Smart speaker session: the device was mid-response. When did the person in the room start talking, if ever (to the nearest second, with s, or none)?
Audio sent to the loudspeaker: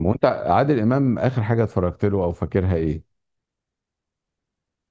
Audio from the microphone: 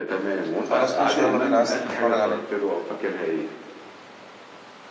1 s